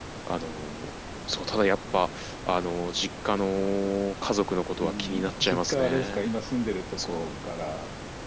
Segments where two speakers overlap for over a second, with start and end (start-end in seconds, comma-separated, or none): 4.8-6.3